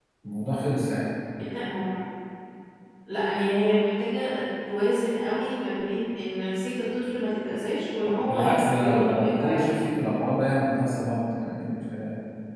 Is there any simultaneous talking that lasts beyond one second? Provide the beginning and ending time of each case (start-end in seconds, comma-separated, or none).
8.1-9.8